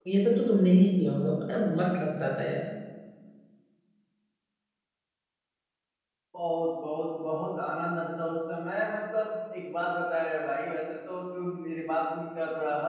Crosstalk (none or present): none